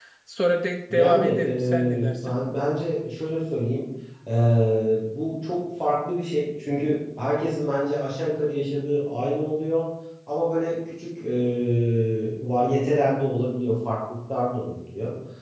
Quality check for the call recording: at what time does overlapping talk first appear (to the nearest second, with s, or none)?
1 s